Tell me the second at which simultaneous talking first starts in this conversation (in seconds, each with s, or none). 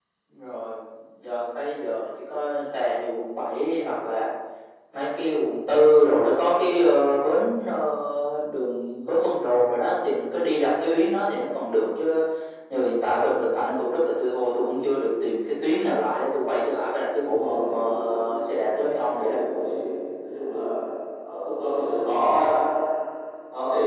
17.2 s